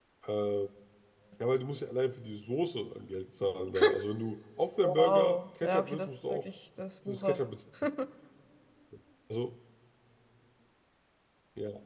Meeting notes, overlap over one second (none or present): present